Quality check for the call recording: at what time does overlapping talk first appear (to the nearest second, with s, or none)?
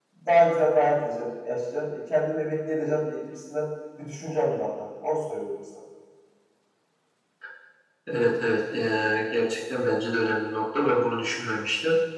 none